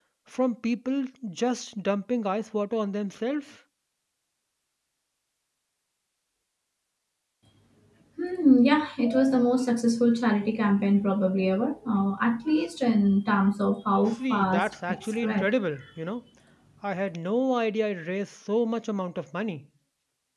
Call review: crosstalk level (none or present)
present